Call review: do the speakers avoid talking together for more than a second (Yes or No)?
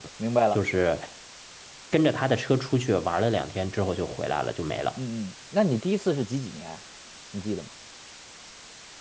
Yes